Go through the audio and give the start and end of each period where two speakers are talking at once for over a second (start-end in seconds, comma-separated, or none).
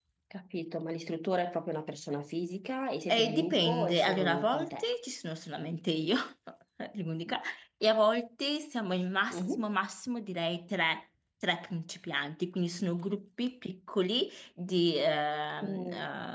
3.1-4.9